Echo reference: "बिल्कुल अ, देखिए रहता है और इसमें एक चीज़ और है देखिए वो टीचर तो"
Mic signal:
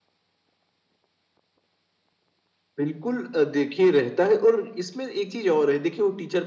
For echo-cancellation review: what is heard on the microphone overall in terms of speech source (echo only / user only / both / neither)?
echo only